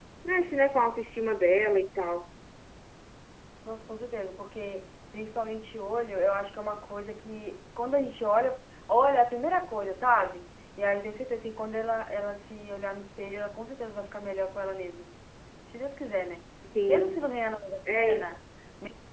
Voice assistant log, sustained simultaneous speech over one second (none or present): none